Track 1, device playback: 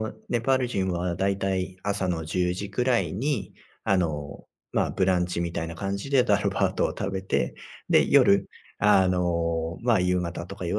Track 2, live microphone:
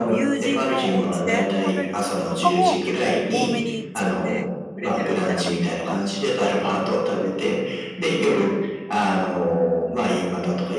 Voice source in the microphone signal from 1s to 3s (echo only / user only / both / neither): both